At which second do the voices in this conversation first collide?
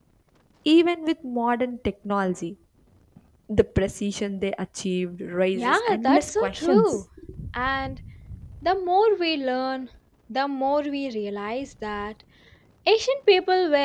5.6 s

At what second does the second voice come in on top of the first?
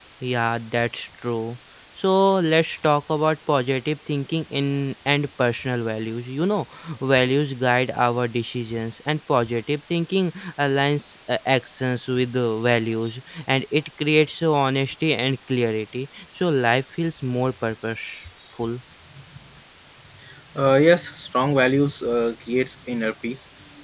none

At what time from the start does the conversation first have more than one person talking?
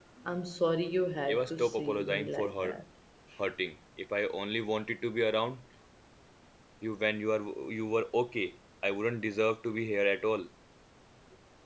1.2 s

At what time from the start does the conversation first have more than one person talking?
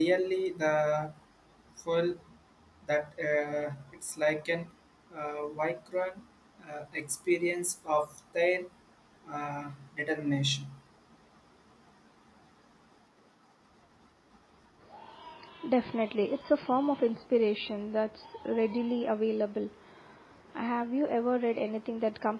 none

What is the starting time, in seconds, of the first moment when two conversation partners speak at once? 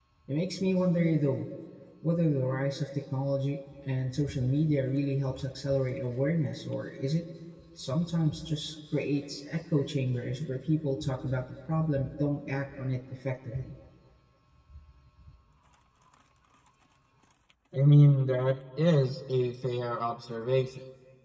none

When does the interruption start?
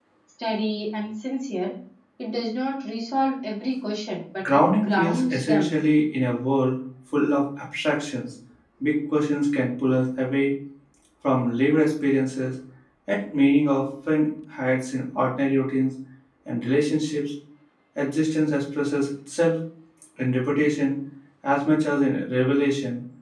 4.4 s

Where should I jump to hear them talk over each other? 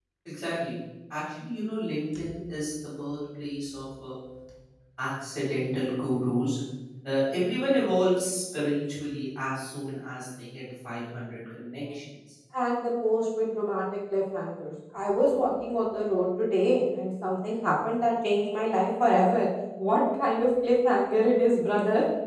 none

